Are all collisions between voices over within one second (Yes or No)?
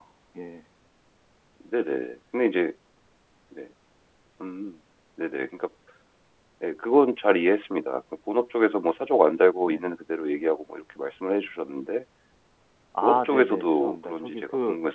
No